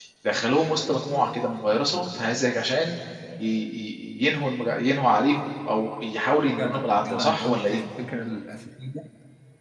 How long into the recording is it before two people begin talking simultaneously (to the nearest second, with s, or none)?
7 s